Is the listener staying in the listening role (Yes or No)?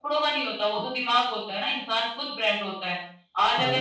Yes